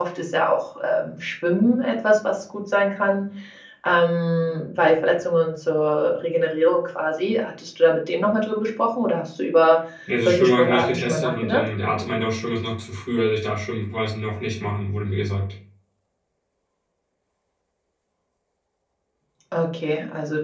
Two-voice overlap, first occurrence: 10.2 s

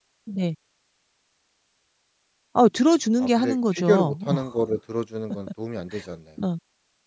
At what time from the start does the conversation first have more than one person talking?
3.2 s

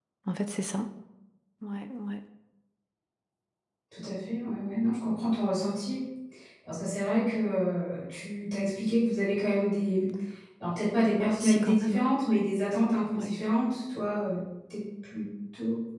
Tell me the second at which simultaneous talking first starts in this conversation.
11.1 s

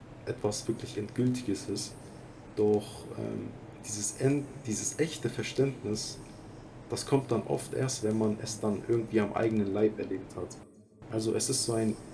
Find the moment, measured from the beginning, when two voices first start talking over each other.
none

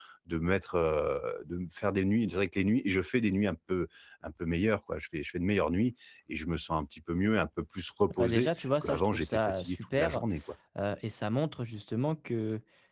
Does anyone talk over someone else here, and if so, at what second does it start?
8.2 s

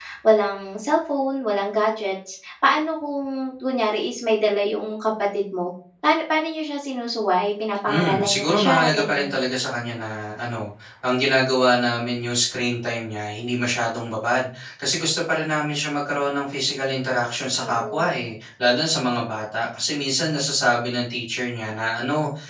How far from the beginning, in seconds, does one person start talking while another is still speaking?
7.9 s

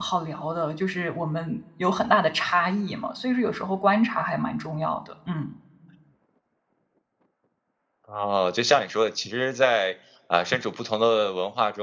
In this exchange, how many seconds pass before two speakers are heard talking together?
none

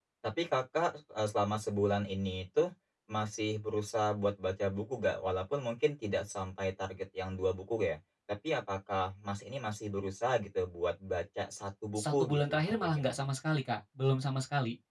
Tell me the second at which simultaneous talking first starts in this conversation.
12.0 s

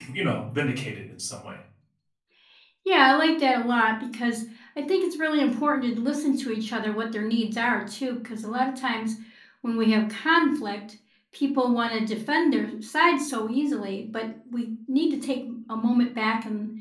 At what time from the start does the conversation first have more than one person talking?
none

